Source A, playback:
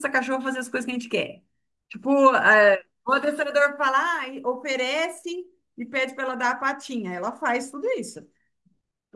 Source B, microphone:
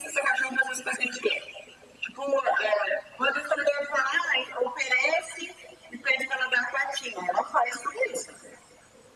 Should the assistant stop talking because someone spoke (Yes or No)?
No